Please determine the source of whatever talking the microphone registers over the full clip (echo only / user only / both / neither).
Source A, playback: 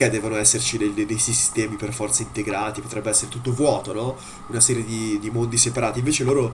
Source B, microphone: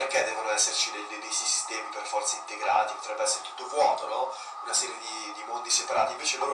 echo only